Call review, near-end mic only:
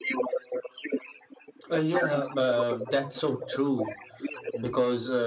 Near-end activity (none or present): present